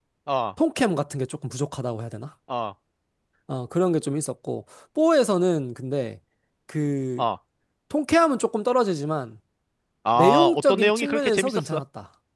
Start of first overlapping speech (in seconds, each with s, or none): 10.2 s